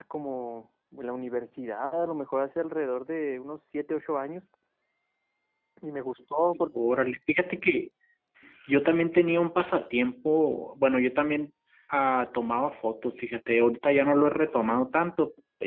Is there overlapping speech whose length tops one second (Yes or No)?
No